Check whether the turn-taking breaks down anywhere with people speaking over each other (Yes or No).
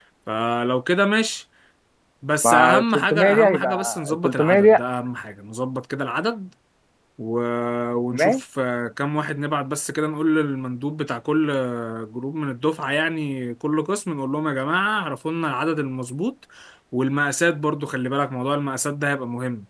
Yes